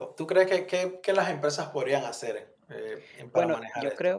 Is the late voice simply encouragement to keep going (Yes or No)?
No